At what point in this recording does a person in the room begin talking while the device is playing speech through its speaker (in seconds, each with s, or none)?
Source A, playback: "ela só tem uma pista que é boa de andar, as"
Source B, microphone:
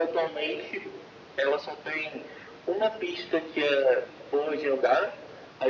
none